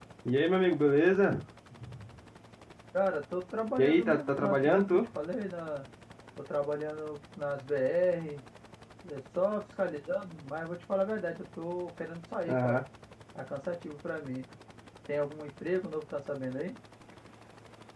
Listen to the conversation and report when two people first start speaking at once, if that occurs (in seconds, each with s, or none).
3.8 s